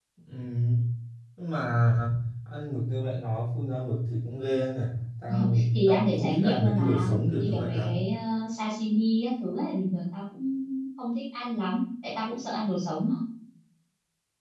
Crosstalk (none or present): present